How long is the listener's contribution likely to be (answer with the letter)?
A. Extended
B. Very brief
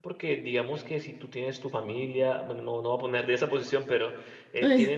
B